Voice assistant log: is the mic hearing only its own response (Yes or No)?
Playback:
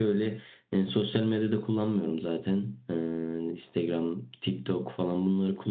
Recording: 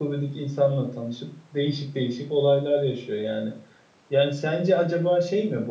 No